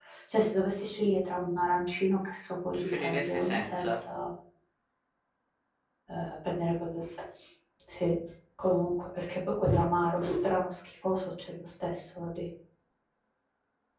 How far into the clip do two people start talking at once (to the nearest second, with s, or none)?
3 s